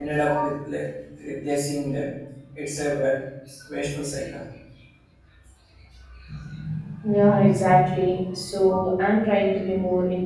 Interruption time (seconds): none

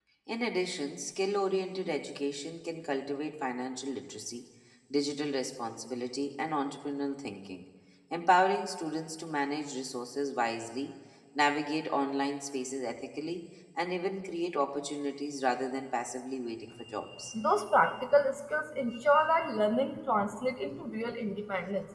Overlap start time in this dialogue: none

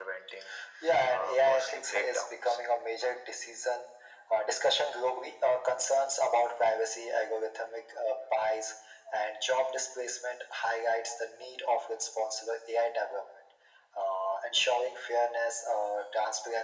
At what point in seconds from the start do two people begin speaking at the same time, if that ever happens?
1 s

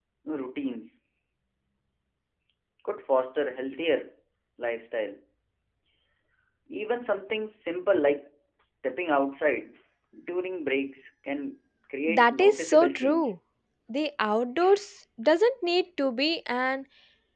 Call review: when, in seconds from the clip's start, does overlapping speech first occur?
12 s

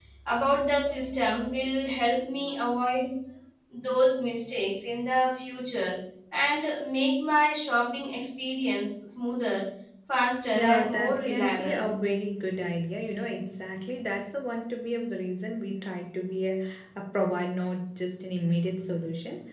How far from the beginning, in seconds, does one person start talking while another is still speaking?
11 s

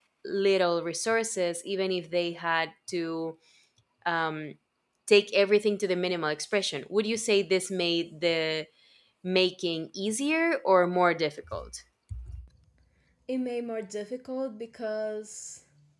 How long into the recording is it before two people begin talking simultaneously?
none

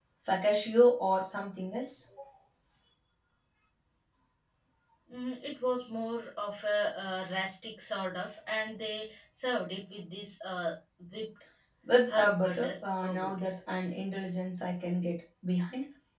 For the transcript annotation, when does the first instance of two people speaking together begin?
12 s

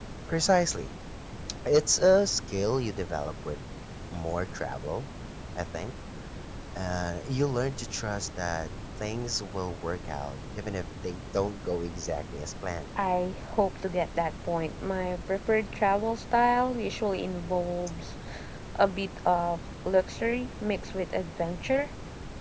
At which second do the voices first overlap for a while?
none

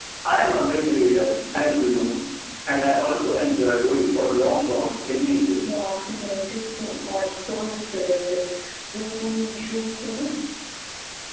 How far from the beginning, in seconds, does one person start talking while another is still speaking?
none

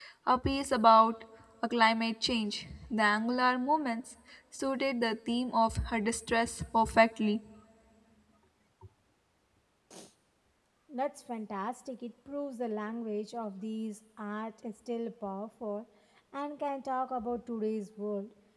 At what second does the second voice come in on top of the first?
none

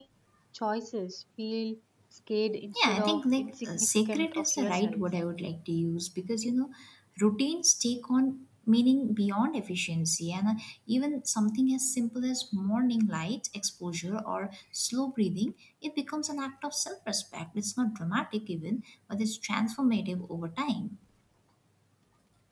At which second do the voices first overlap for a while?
3 s

